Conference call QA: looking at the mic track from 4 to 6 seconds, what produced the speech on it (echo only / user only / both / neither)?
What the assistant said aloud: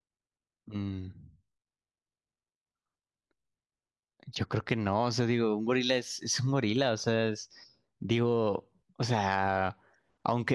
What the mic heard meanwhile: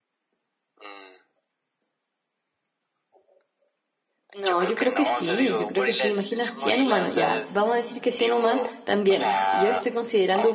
both